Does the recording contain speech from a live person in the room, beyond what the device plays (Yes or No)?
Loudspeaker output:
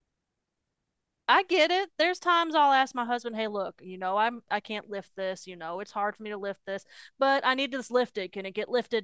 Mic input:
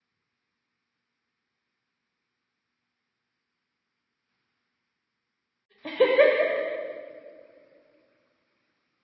Yes